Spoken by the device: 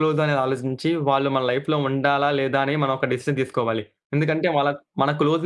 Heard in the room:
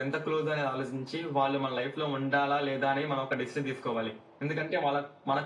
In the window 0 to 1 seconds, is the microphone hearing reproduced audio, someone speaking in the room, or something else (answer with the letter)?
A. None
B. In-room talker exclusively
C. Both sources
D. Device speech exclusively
D